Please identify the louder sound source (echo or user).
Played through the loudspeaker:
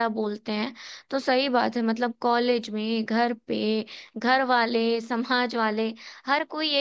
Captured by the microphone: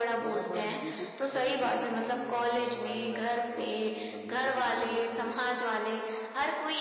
echo